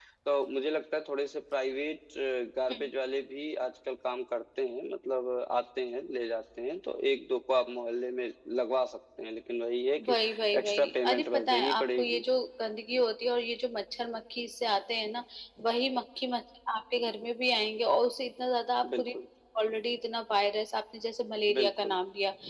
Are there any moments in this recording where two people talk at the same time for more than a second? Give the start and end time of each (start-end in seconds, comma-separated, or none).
10.6-12.2